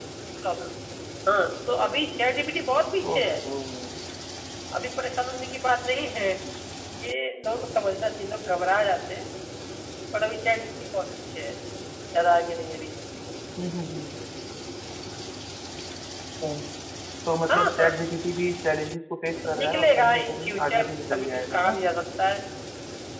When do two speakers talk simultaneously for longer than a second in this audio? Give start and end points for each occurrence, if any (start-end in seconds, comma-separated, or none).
19.5-21.7